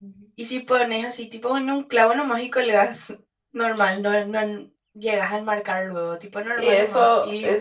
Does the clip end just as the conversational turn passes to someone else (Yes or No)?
Yes